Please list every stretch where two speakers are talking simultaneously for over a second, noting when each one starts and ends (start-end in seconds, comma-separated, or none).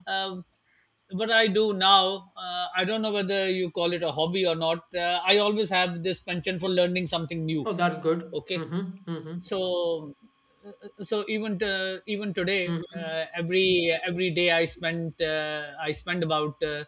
none